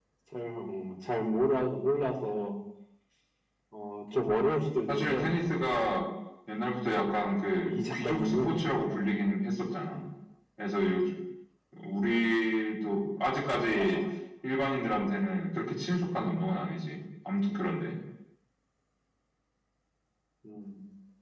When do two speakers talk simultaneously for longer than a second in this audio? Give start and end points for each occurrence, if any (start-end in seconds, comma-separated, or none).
7.1-8.7